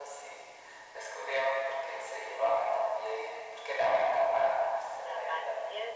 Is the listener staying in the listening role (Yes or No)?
No